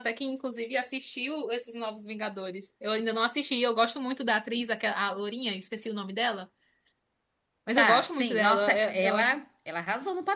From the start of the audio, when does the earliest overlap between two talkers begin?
7.8 s

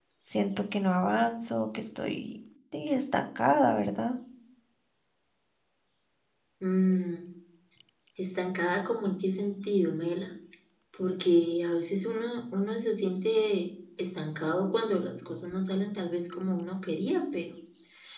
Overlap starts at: none

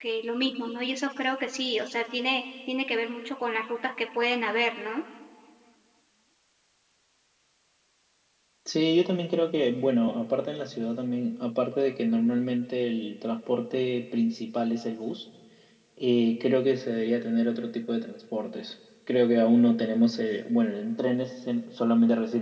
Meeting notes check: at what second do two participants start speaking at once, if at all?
none

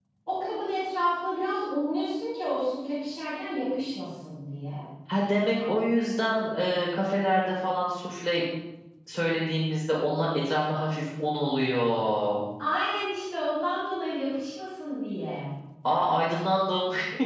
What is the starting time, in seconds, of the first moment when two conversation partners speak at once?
none

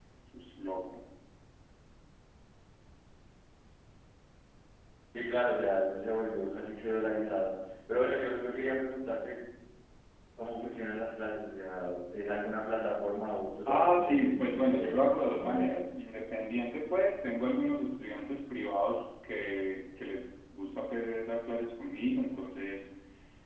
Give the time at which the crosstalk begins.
13.7 s

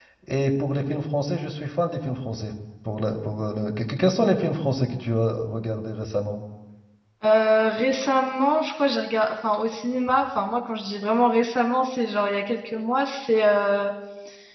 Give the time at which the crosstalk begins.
none

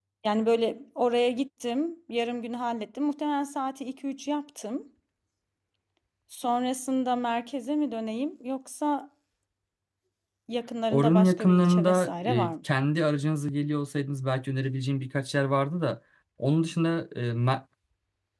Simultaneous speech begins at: 10.9 s

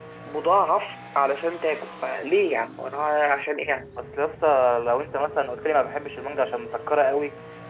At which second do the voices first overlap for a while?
none

